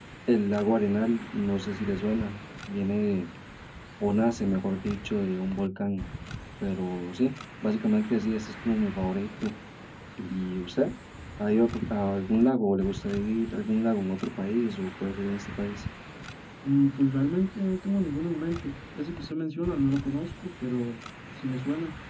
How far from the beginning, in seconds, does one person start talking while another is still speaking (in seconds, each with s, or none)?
none